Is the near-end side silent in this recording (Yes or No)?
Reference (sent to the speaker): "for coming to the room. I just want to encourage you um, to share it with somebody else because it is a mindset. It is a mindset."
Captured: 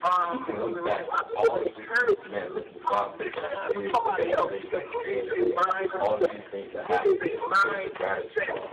No